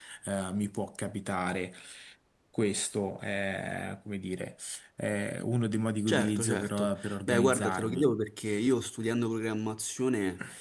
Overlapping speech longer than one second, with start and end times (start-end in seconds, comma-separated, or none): 6.1-8.2